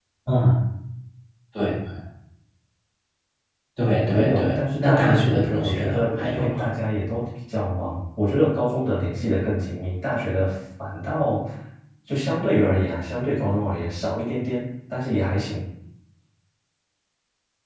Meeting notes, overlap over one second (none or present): present